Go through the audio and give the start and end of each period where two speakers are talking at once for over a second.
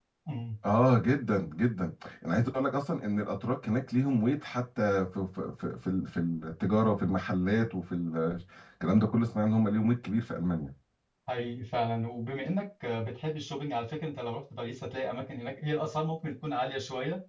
none

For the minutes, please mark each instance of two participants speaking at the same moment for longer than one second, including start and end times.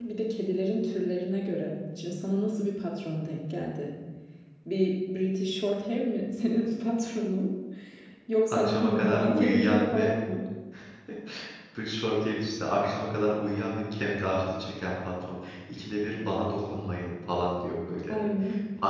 8.5-10.1

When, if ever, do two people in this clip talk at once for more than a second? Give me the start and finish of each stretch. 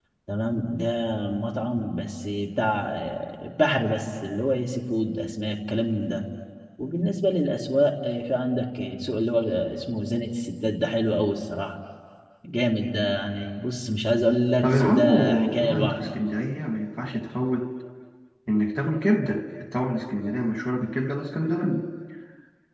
14.6-16.1

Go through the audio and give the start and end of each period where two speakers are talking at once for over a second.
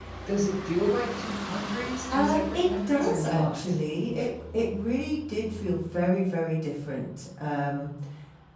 2.1-3.8

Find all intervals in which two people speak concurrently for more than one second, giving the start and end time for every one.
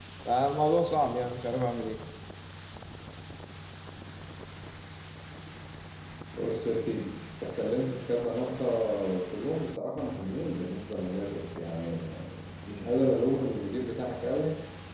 none

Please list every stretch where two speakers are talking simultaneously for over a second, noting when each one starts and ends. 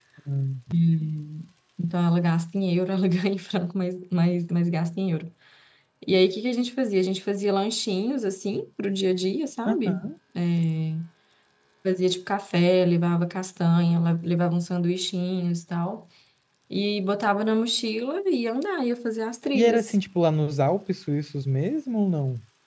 none

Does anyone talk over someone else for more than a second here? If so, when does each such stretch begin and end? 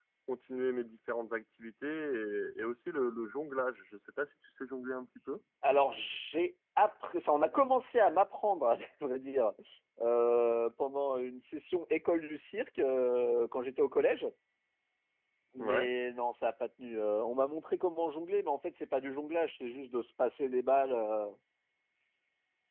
none

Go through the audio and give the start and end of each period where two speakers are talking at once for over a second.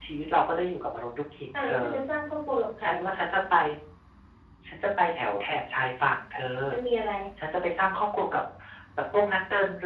none

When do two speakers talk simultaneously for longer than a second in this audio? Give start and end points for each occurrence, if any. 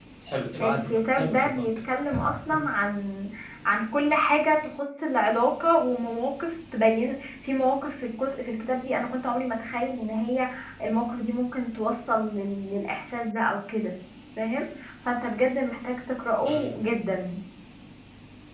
0.6-1.9

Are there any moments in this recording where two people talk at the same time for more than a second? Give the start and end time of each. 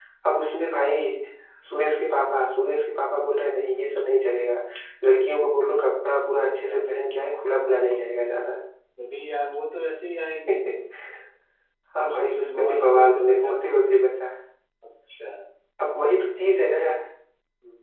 12.0-13.6

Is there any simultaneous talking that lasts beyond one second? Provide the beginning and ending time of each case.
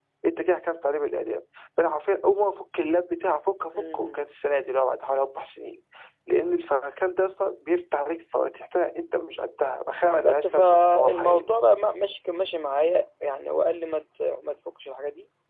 10.2-11.5

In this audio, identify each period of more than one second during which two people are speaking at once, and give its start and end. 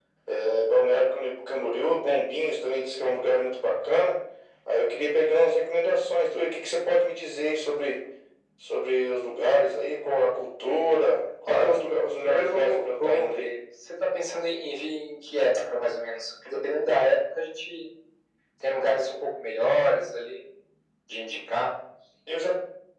11.5-13.5

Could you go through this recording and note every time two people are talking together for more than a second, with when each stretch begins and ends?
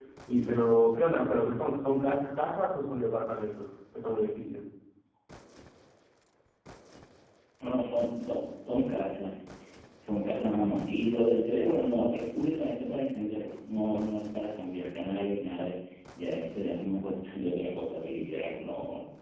none

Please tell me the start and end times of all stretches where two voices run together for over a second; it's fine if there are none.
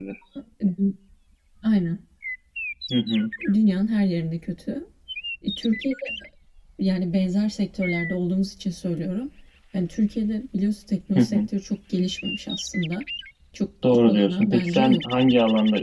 13.8-15.3

